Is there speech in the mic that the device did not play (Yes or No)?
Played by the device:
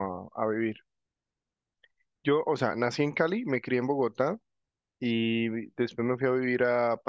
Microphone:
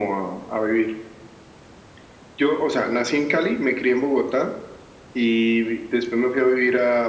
No